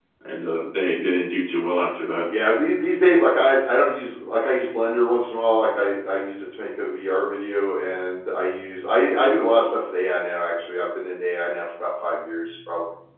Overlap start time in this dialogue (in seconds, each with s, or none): none